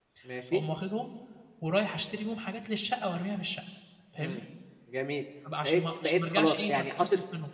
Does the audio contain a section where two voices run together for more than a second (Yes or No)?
Yes